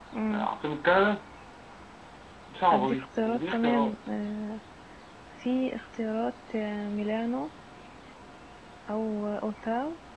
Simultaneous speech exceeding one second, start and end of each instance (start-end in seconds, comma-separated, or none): 2.7-3.9